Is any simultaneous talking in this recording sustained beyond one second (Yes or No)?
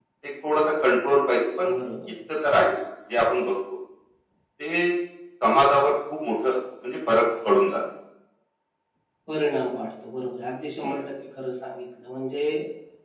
No